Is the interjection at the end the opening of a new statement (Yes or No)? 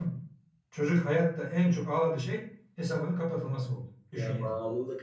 Yes